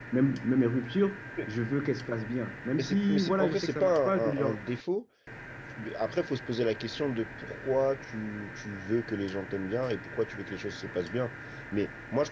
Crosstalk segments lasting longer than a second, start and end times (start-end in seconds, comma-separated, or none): 2.8-4.6